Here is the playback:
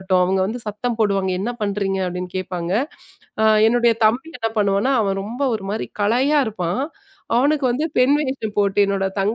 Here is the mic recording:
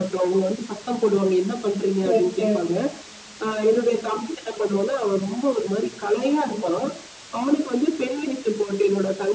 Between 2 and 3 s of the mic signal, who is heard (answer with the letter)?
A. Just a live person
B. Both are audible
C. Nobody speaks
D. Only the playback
B